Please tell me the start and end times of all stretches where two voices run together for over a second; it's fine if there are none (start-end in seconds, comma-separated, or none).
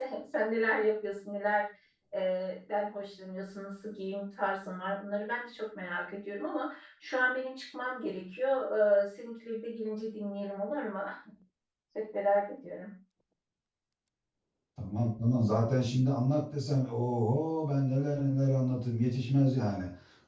none